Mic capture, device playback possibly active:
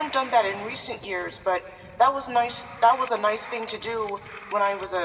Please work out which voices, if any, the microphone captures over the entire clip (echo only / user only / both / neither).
echo only